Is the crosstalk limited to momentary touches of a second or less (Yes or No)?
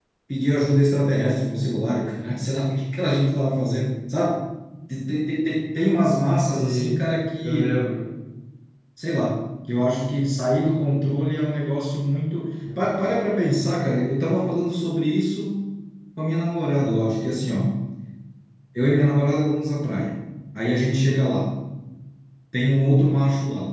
Yes